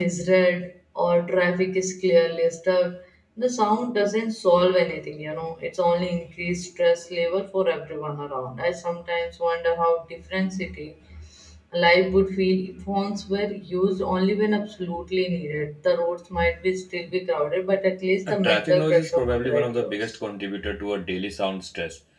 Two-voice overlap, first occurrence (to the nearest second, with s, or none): 18 s